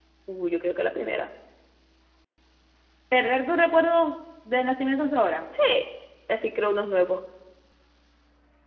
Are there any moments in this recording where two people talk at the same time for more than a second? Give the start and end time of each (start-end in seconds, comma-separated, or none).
none